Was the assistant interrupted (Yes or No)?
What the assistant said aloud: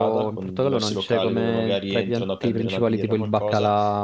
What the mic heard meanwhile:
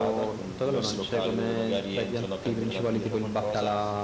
No